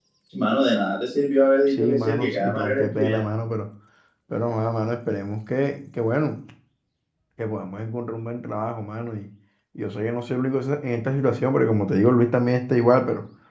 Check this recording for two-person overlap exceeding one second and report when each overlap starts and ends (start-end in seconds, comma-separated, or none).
1.7-3.2